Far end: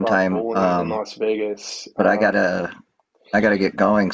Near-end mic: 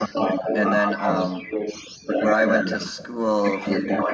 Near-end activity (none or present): present